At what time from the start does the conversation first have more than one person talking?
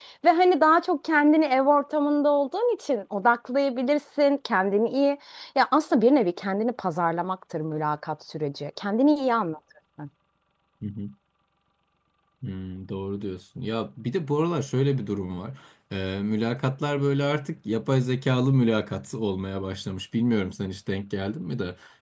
none

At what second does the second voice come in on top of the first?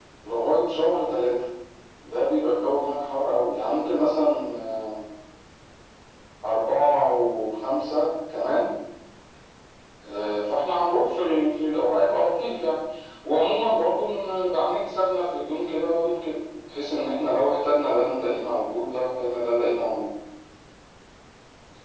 none

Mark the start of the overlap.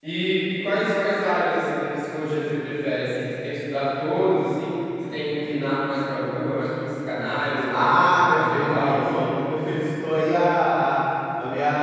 7.7 s

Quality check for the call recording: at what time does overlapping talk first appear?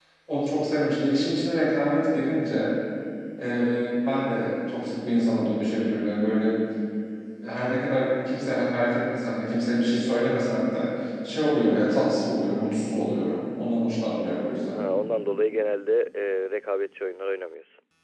none

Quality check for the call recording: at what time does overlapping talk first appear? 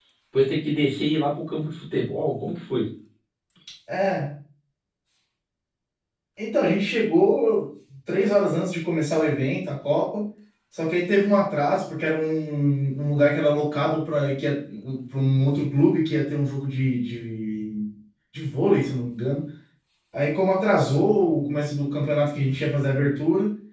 none

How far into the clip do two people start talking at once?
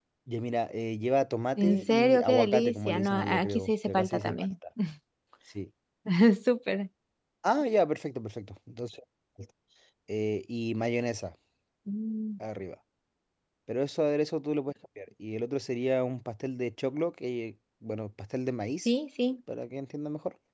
1.6 s

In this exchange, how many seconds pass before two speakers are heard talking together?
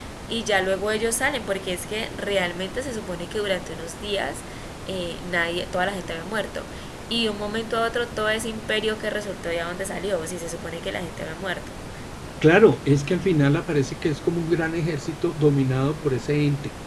none

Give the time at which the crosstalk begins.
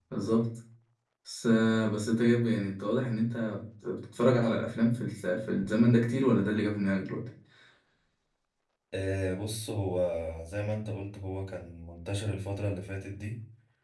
none

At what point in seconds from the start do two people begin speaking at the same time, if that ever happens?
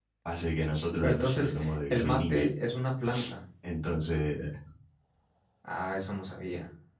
1.0 s

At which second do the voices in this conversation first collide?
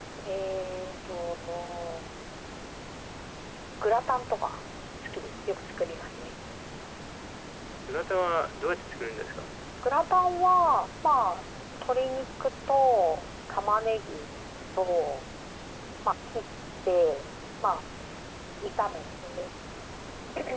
none

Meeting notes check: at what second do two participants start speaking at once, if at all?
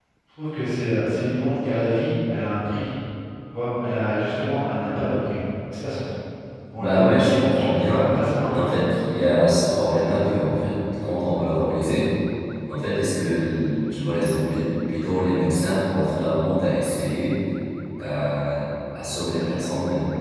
6.8 s

